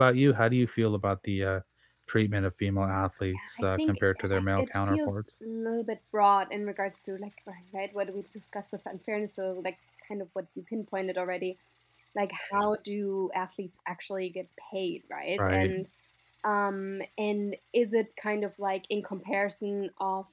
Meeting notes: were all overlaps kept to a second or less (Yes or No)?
No